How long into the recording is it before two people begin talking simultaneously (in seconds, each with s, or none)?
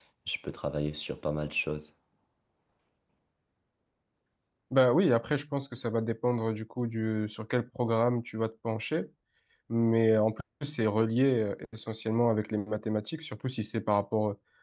none